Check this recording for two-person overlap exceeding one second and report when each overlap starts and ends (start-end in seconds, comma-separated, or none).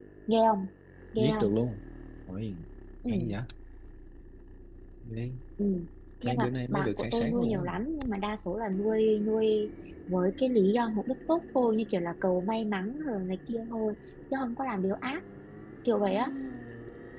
6.2-7.7